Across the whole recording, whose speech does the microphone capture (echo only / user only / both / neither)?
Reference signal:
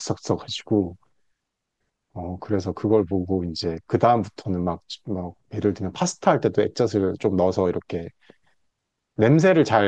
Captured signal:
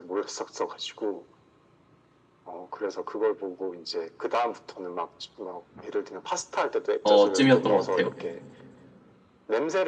both